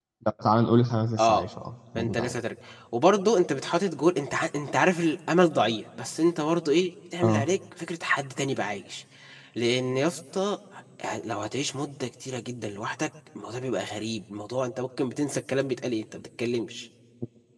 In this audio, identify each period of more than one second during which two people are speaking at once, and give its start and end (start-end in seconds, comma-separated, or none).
none